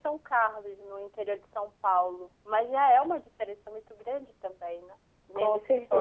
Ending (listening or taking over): listening